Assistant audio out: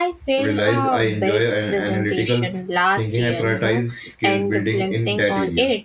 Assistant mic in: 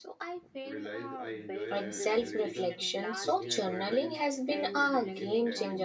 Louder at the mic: user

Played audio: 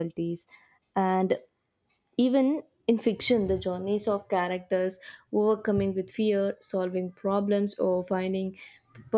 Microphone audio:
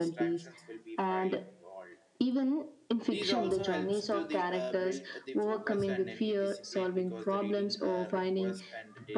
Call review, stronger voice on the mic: echo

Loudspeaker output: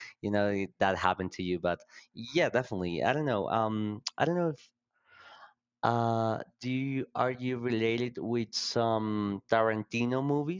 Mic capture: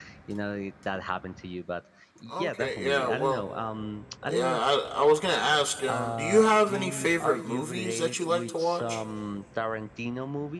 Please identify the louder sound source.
user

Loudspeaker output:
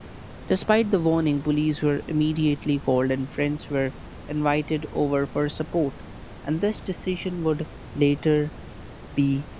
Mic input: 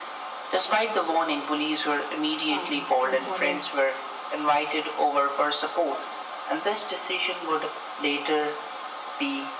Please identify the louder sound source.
echo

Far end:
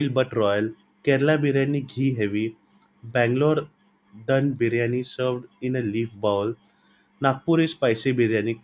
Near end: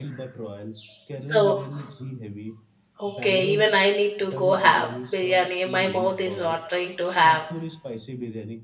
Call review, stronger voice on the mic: user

